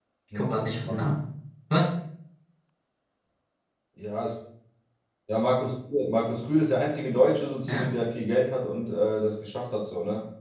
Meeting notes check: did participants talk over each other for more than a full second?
No

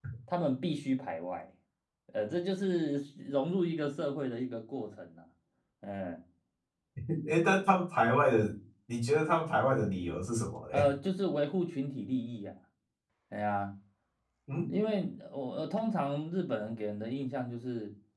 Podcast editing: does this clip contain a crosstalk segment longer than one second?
No

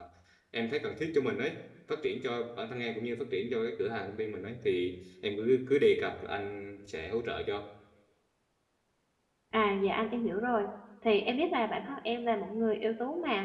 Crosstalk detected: No

